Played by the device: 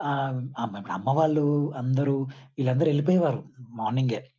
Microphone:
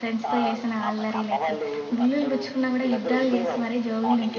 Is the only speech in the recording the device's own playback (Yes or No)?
No